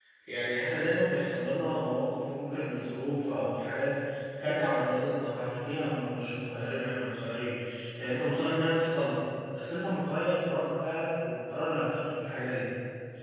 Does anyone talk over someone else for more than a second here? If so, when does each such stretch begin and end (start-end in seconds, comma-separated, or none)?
none